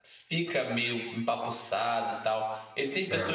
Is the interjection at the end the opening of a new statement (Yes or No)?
No